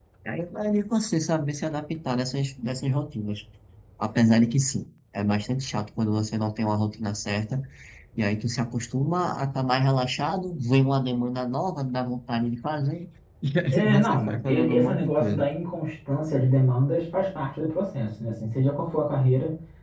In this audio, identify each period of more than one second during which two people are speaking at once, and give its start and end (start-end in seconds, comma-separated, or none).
13.7-15.5